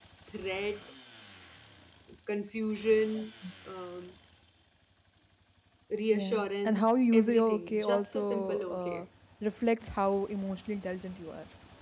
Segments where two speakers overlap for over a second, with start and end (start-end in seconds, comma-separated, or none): 6.1-9.0